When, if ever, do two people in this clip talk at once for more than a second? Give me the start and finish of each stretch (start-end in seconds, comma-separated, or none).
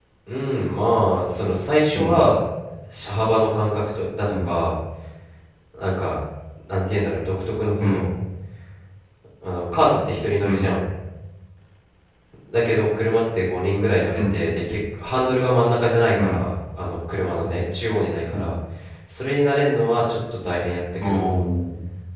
none